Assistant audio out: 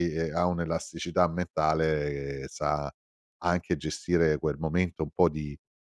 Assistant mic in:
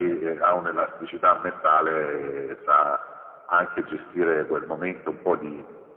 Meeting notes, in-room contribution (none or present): none